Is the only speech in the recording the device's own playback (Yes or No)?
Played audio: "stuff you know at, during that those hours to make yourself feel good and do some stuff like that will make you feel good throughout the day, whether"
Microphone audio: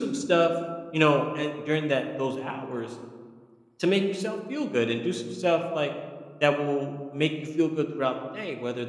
Yes